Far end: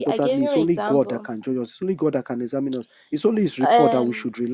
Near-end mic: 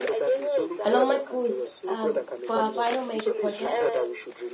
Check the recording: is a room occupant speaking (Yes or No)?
Yes